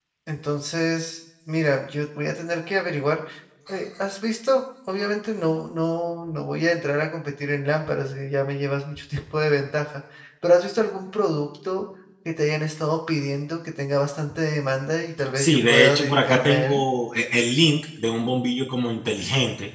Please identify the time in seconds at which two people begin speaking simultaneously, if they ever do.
15.2 s

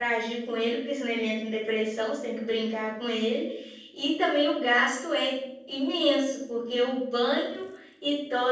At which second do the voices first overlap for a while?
none

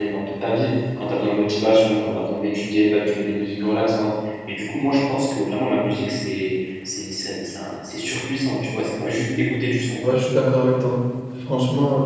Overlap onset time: none

